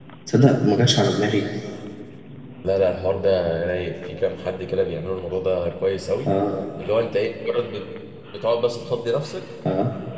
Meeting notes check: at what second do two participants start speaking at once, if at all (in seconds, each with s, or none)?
none